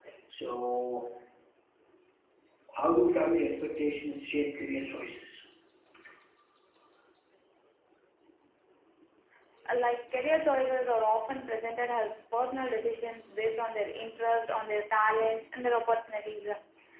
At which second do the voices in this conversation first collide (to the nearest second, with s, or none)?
none